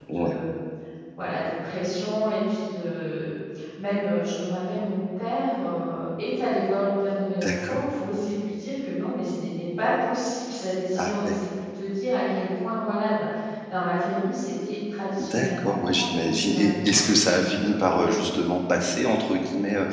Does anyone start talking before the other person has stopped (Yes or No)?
Yes